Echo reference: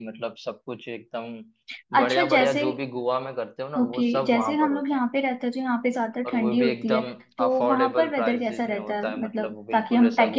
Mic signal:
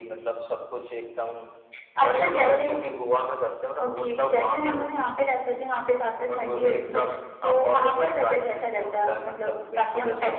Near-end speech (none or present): none